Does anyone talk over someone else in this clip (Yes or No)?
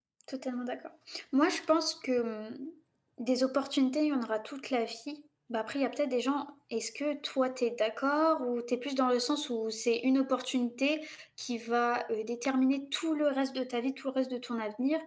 No